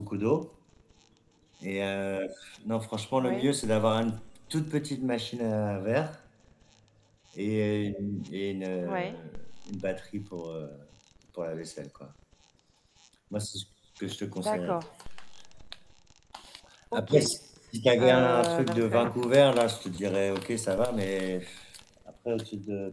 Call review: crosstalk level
present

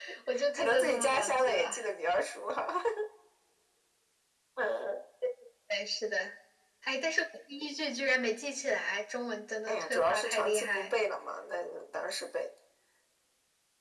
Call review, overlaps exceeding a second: present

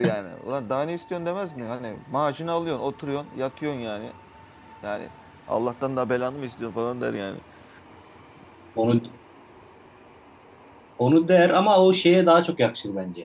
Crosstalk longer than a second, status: none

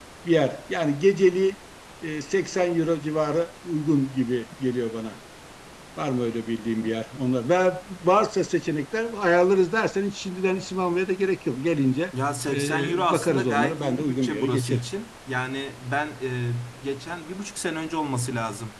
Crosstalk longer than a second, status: present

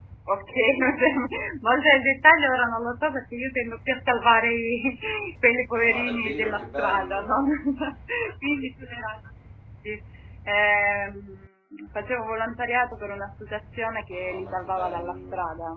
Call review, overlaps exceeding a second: present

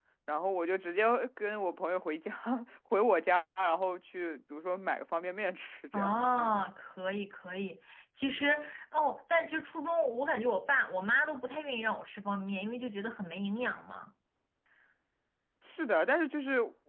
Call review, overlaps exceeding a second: none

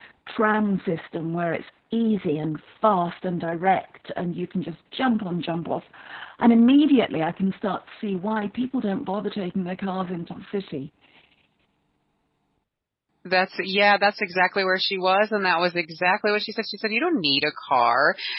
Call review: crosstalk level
none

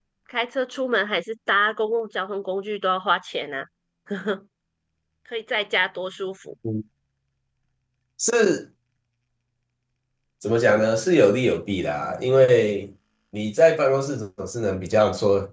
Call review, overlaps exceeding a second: none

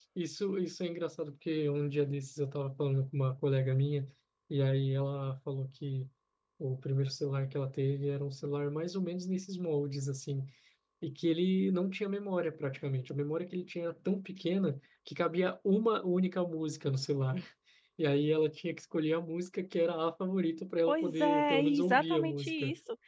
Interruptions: present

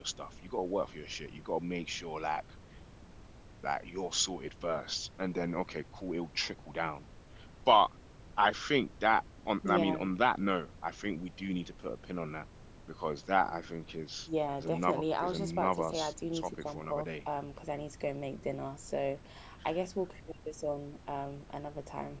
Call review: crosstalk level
present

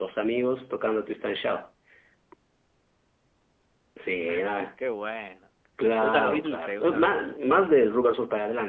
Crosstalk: present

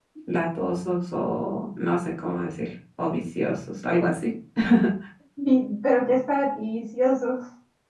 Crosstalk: none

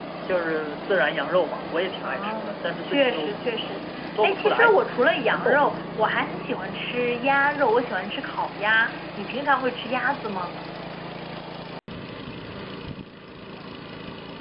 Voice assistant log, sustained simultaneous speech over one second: present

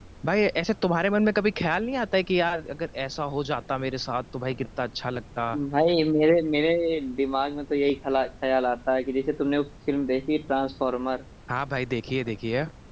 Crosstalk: none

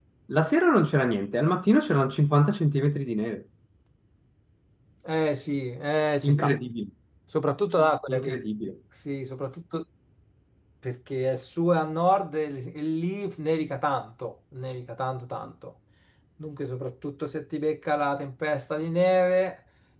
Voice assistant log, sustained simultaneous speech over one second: none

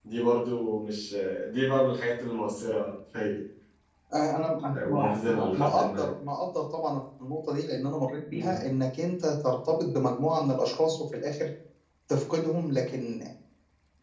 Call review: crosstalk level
present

